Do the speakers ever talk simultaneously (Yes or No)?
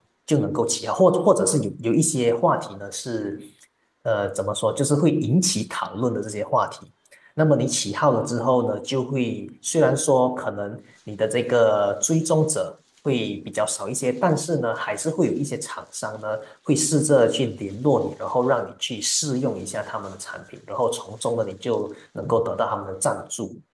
No